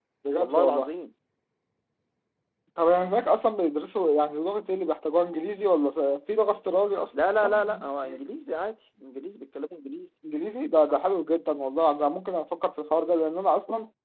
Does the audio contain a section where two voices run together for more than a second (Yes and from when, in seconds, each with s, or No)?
No